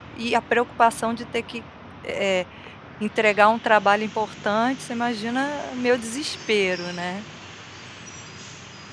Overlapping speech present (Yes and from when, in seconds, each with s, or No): No